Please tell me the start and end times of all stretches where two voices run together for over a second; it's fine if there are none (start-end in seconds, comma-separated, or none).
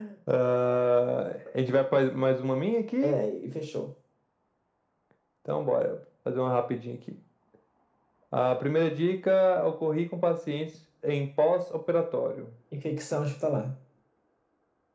none